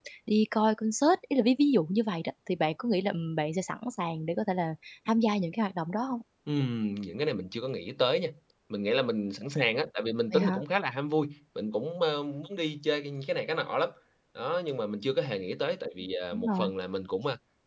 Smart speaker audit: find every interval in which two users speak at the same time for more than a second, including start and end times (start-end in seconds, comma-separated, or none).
none